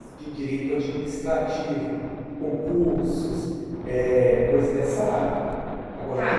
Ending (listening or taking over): taking over